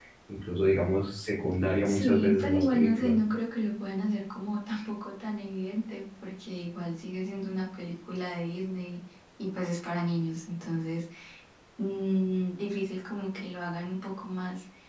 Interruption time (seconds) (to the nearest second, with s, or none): 2 s